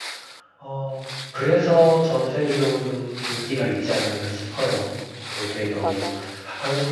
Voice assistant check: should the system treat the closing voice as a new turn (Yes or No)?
No